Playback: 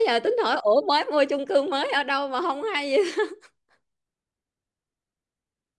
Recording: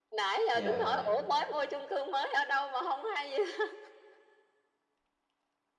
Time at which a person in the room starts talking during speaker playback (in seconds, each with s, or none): 0.5 s